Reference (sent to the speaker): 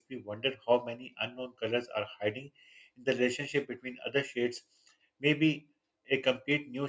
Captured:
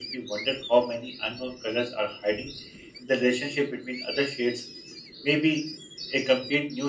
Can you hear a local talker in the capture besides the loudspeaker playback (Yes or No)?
No